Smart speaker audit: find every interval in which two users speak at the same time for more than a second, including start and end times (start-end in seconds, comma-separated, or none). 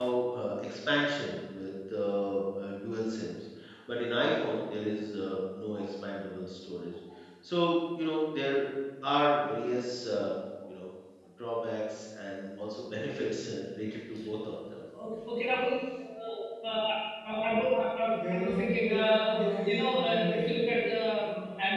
18.1-21.0